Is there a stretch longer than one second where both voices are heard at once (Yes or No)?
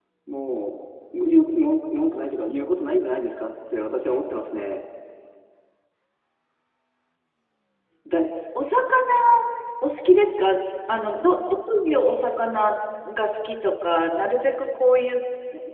No